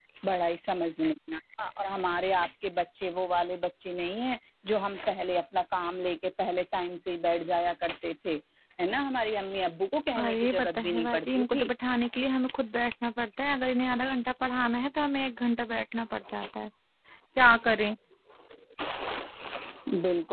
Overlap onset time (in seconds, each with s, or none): 10.2 s